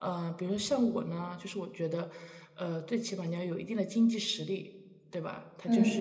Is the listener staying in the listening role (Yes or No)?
Yes